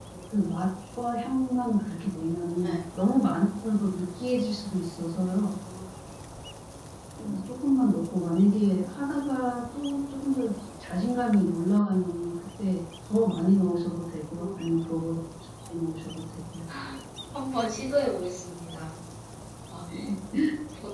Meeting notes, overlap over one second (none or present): none